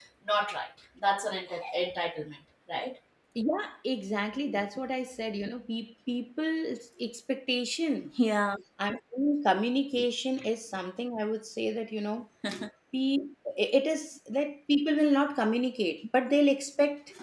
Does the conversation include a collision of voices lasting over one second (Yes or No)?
No